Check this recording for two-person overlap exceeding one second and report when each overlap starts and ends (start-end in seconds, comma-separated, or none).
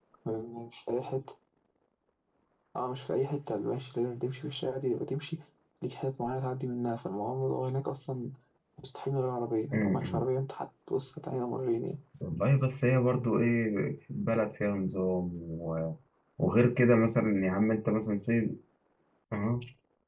none